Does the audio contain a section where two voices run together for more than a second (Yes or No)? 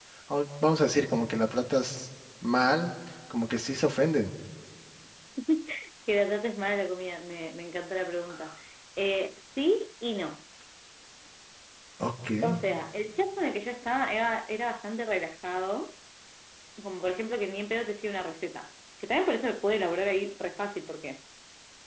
No